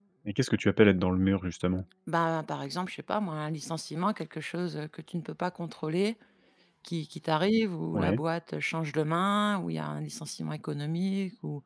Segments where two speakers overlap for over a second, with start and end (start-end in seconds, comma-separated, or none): none